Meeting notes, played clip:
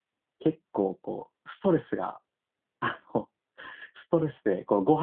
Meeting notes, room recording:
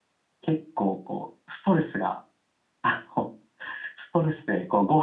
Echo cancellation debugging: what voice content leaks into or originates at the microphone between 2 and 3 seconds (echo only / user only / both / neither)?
echo only